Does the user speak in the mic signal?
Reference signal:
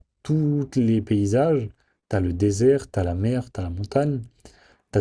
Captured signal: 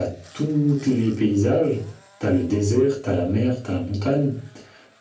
No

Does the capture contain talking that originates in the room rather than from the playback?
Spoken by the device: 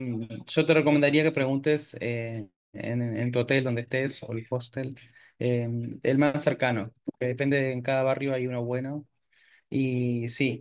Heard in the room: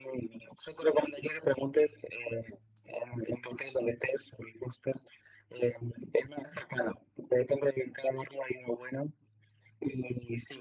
No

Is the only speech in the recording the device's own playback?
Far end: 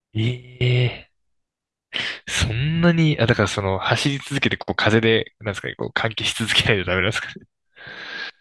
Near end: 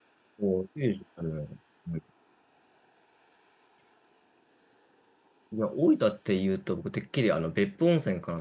No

